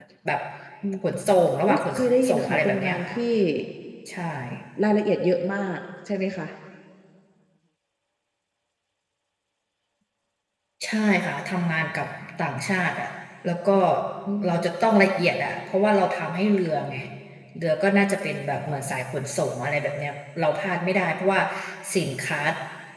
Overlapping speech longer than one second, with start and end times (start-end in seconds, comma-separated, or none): 1.7-3.2